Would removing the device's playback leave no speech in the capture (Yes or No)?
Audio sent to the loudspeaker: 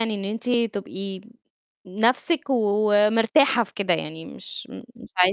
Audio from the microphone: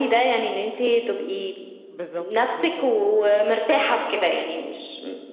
No